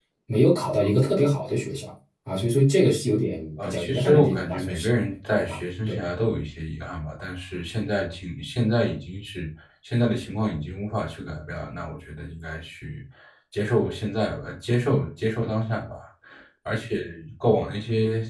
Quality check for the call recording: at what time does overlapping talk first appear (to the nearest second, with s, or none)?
4 s